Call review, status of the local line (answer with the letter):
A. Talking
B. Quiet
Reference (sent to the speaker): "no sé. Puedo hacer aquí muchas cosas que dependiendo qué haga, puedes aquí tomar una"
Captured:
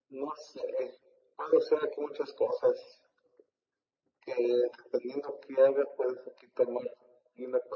B